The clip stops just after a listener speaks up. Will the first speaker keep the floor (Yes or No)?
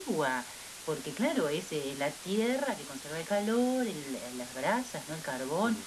Yes